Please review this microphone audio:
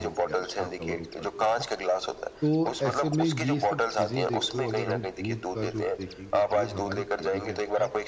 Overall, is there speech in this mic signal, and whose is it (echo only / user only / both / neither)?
both